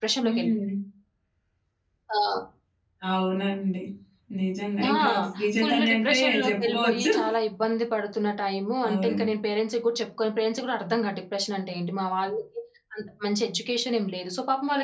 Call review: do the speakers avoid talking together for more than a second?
No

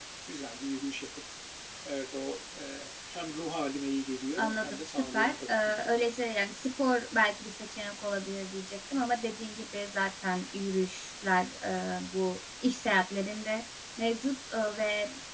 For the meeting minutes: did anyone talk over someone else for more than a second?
Yes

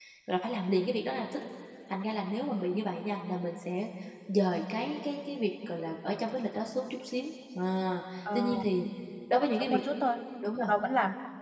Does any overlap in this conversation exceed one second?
No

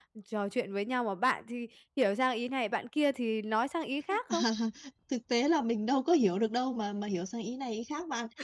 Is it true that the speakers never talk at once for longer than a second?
Yes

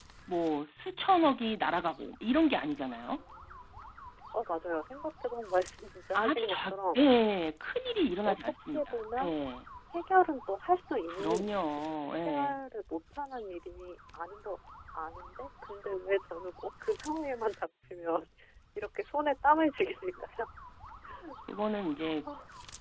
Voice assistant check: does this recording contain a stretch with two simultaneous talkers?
Yes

